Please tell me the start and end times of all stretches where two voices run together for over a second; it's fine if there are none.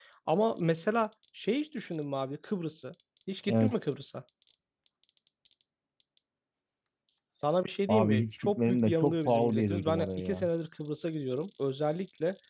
7.9-10.5

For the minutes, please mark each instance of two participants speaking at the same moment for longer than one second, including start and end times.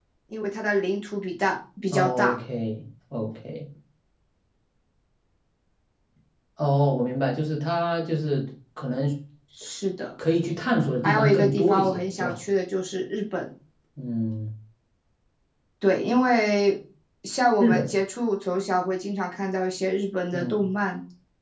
11.0-12.4

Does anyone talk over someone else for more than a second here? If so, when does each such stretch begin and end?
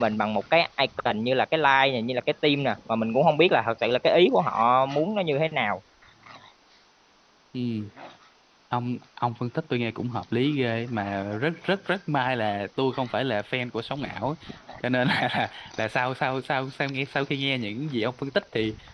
none

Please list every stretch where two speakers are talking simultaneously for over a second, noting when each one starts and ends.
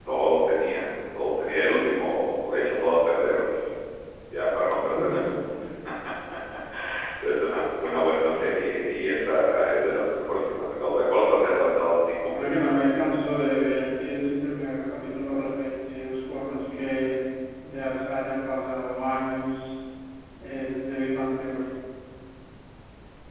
none

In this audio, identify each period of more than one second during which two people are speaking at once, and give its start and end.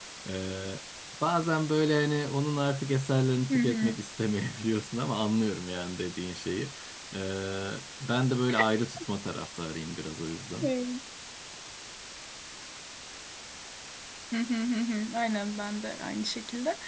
none

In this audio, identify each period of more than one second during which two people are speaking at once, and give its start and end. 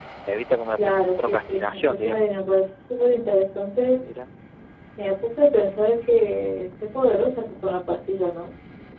0.8-2.4

